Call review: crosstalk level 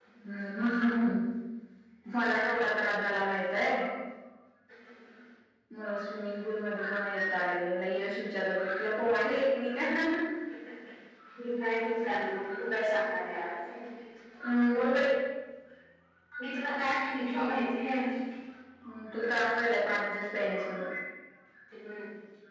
none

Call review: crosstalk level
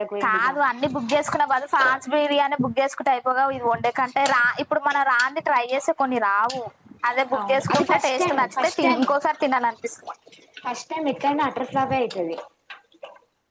present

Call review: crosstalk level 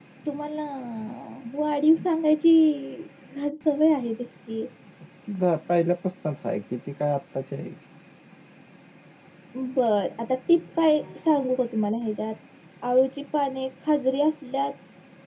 none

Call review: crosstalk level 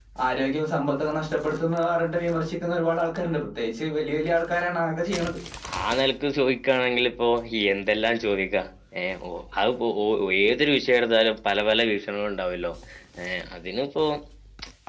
none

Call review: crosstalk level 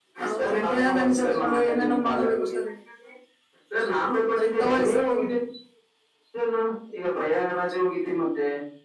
present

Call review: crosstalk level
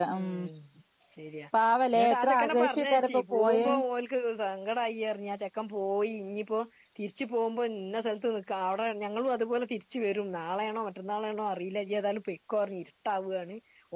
present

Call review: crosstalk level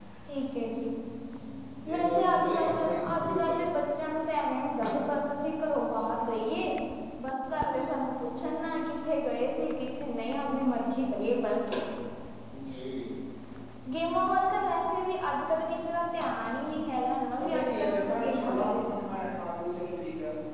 present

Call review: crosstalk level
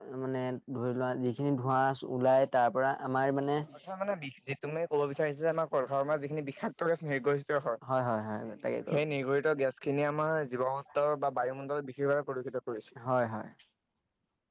none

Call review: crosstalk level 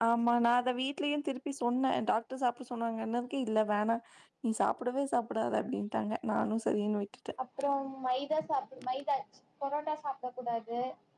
none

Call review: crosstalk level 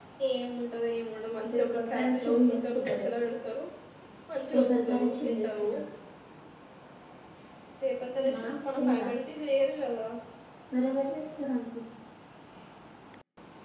present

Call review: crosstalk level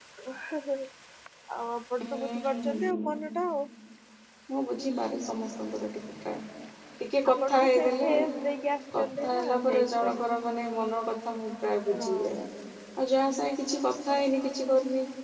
present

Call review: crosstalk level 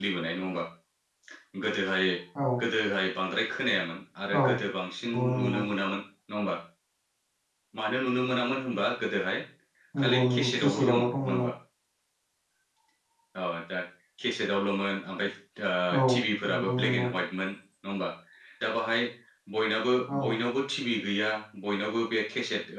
present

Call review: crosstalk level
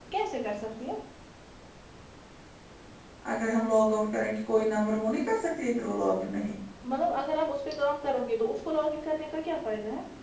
none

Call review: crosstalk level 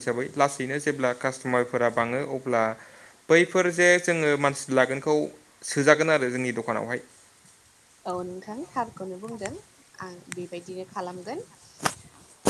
none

